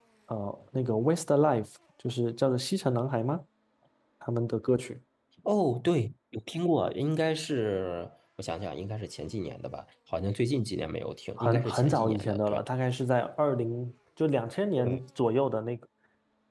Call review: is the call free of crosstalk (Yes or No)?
No